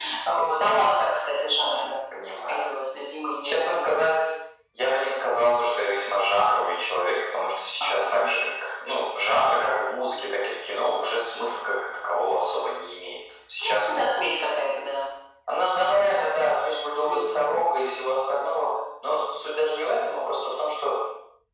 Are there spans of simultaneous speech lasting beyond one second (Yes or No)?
No